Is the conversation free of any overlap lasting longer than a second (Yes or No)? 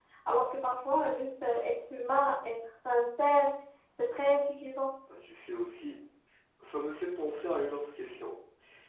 Yes